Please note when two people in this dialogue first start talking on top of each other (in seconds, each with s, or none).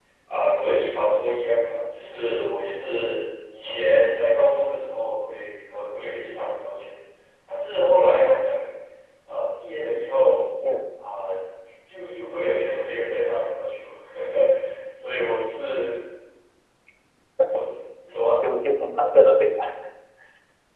none